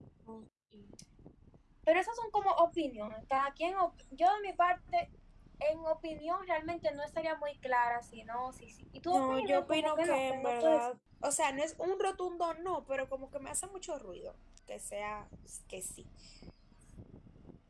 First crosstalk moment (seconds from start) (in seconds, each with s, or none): 9.1 s